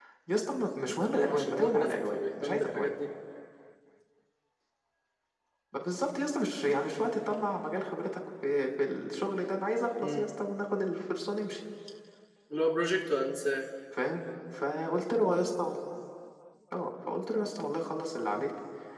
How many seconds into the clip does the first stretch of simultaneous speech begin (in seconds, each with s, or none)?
1.1 s